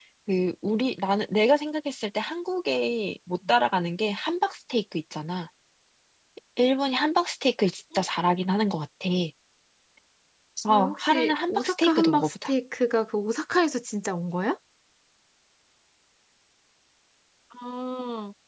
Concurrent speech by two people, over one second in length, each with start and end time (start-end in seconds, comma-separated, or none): 10.7-12.5